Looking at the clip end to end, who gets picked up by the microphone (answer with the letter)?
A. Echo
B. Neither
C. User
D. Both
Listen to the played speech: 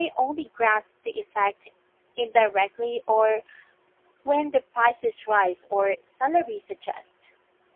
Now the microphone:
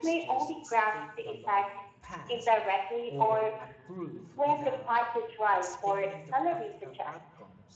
D